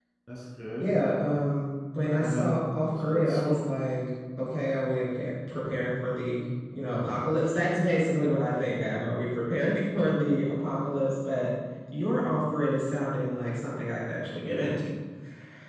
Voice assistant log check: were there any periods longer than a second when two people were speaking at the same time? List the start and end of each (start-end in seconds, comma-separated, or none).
2.2-3.4